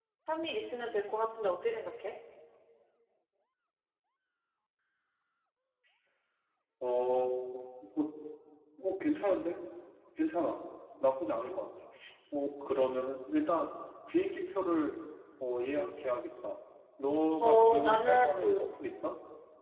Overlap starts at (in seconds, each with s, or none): 17.4 s